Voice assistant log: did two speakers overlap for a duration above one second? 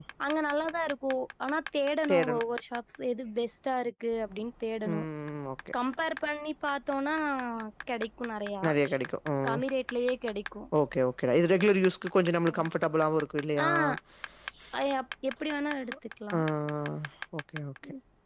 No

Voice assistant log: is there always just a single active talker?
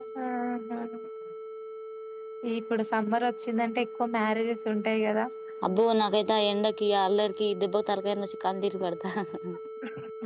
Yes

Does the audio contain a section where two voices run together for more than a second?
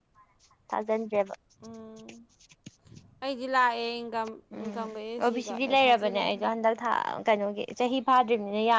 Yes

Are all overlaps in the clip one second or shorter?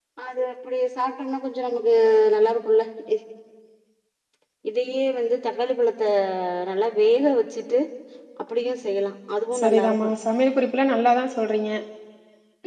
Yes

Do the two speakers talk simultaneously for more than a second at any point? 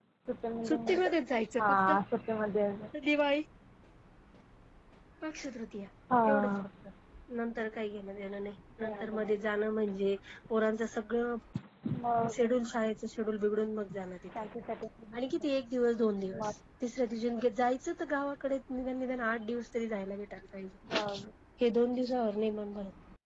No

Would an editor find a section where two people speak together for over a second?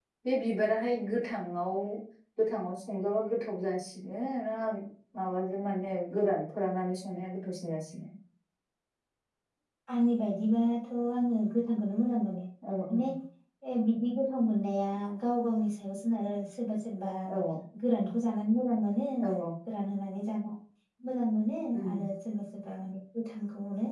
No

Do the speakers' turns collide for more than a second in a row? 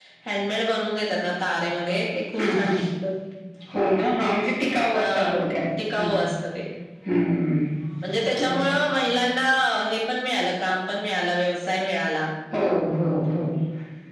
No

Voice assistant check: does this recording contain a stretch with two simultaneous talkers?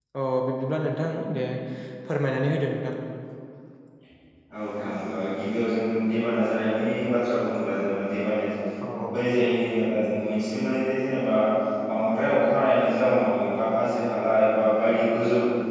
No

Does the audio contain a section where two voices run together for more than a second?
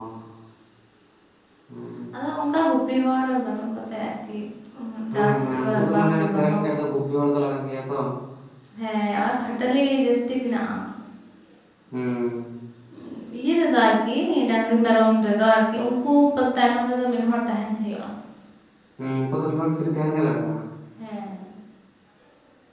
Yes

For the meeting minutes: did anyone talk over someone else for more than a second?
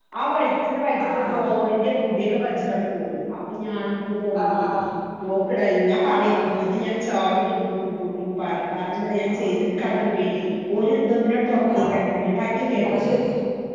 No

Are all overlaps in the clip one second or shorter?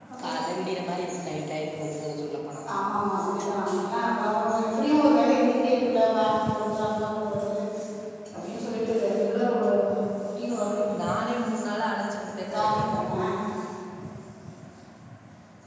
Yes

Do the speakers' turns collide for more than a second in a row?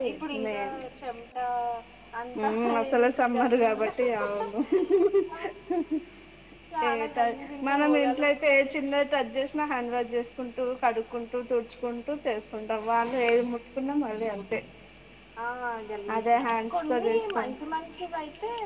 Yes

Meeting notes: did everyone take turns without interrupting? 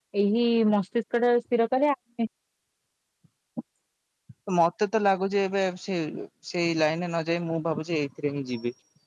Yes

